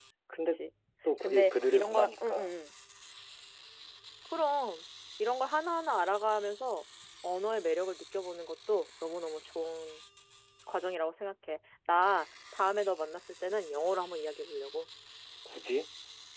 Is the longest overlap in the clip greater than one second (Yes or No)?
Yes